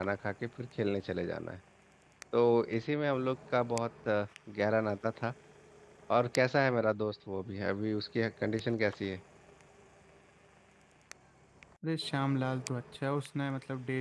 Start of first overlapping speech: none

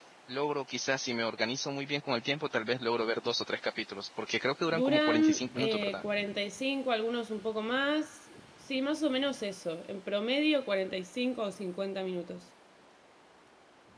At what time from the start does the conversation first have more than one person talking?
4.7 s

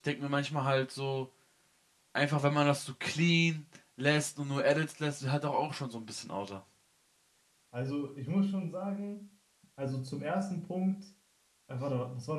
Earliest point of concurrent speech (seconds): none

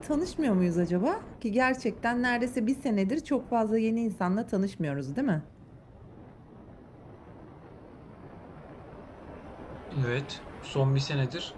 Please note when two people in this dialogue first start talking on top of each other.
none

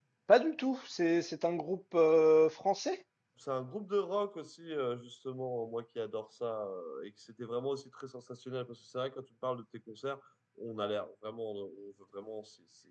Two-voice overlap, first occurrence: none

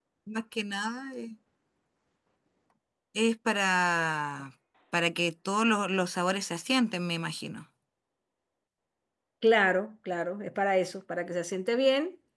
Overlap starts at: none

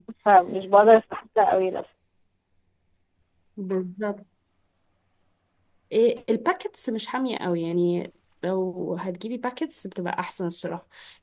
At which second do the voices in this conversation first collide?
none

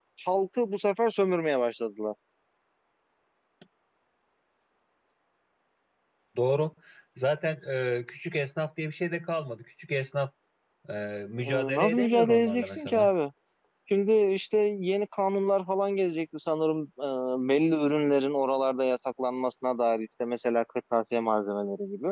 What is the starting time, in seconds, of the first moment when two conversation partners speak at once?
11.4 s

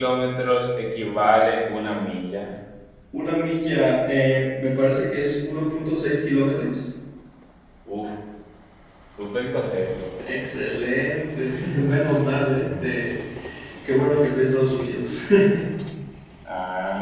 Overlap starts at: none

